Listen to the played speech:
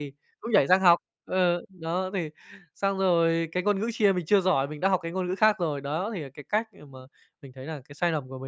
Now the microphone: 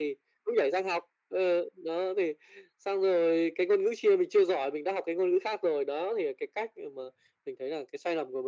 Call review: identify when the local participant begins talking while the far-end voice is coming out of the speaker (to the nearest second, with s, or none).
none